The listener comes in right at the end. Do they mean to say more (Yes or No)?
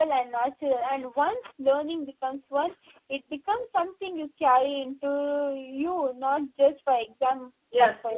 Yes